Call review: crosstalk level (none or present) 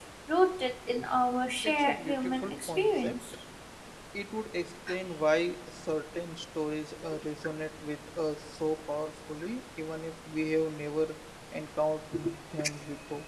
present